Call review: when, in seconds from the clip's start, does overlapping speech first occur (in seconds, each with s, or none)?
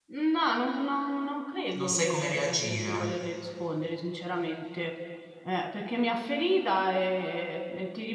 1.7 s